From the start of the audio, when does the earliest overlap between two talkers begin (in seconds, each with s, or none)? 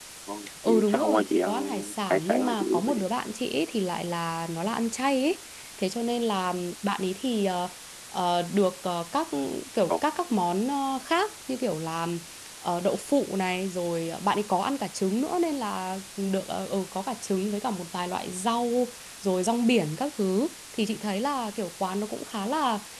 0.7 s